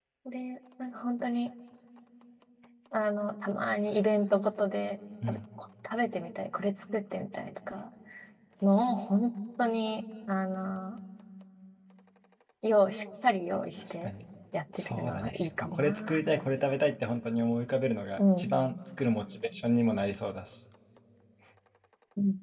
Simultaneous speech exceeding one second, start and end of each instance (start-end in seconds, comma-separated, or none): 14.8-16.2